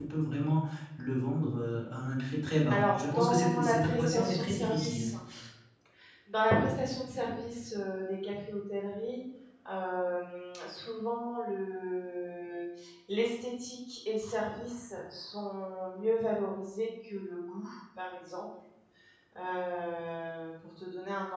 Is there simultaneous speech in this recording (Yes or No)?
Yes